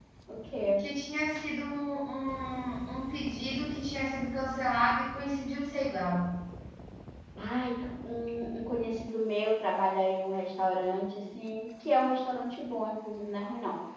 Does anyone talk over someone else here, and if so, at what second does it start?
none

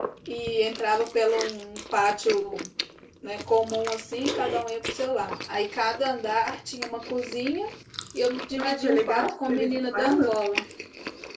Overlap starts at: 8.6 s

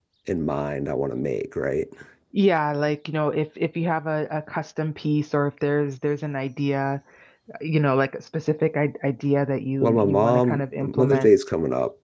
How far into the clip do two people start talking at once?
9.8 s

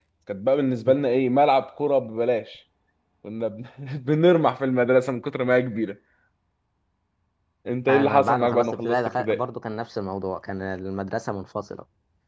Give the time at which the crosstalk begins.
7.9 s

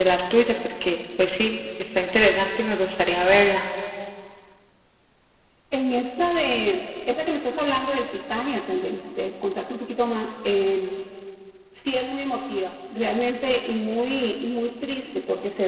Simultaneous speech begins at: none

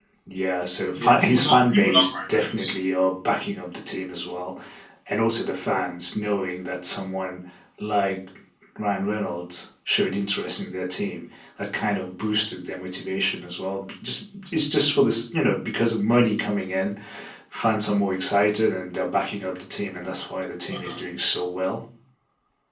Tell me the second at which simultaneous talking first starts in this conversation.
0.9 s

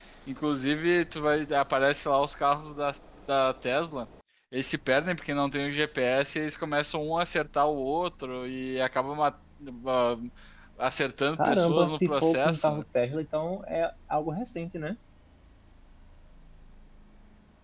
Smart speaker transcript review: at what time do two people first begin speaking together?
11.4 s

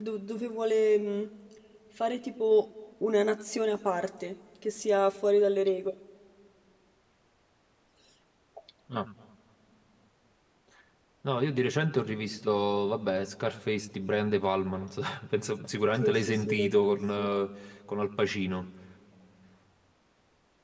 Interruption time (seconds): 16.0 s

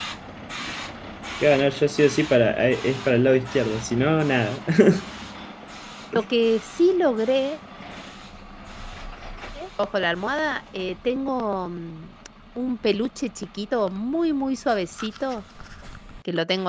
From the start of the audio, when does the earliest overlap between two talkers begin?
none

